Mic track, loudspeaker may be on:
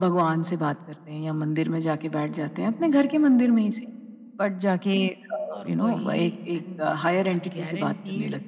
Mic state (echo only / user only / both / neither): both